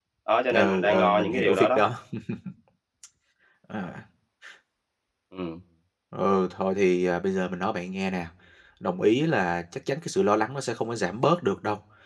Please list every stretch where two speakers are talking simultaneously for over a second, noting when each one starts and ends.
0.5-1.8

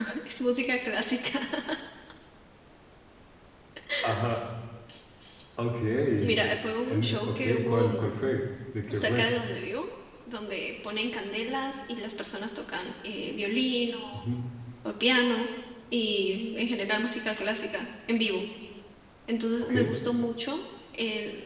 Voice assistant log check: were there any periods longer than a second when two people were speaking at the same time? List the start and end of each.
6.8-8.1

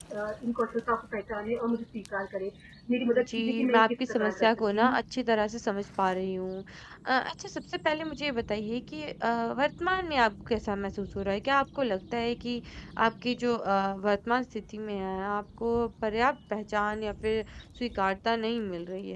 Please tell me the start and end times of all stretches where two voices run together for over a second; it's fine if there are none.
3.1-5.0

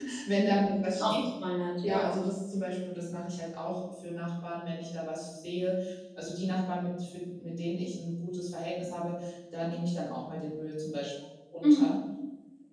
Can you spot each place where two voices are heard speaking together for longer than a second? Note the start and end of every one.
none

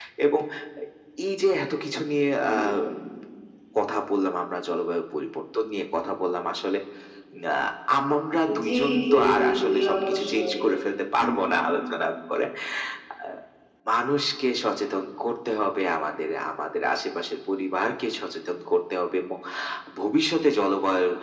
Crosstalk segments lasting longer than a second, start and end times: 8.6-10.5

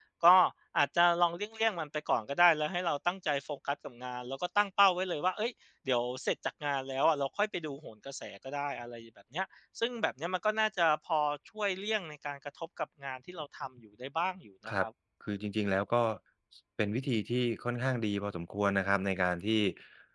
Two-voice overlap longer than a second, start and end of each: none

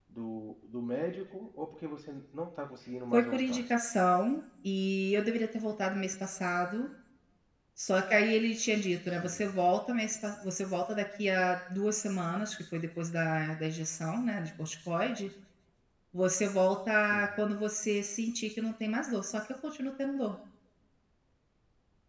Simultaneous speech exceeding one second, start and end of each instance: none

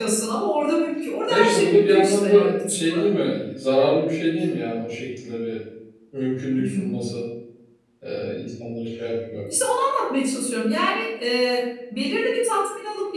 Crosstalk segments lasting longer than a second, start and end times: 1.3-3.0

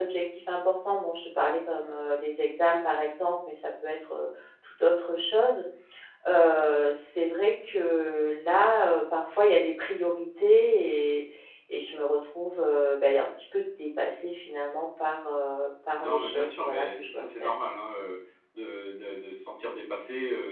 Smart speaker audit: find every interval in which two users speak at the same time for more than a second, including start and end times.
16.0-17.5

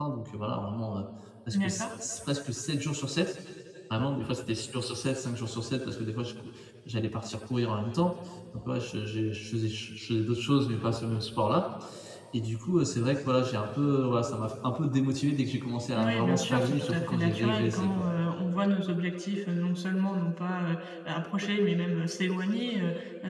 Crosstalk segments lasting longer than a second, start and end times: 15.9-18.1

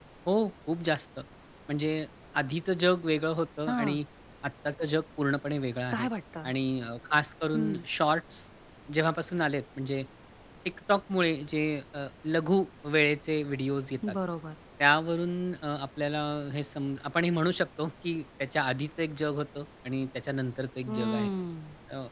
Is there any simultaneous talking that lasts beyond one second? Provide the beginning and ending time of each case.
none

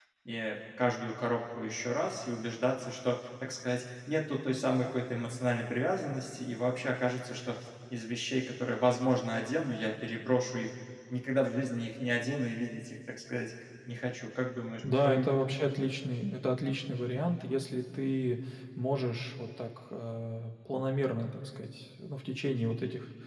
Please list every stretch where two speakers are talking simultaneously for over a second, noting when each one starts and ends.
none

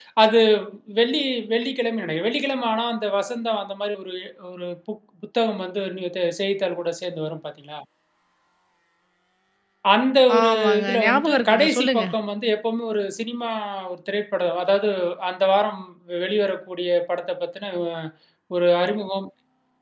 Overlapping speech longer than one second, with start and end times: 10.4-12.0

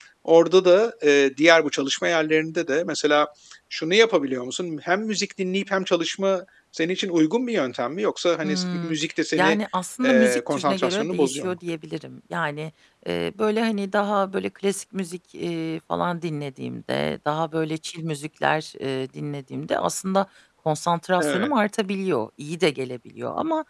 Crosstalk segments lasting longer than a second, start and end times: 10.0-11.6

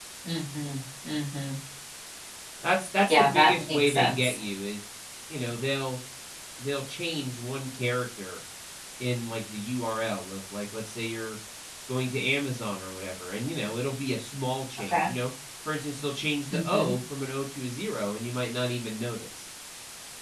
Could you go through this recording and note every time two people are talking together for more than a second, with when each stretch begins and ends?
3.1-4.3

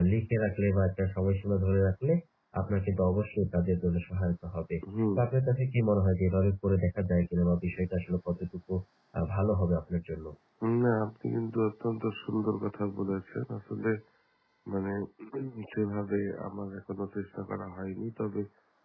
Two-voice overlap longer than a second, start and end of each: none

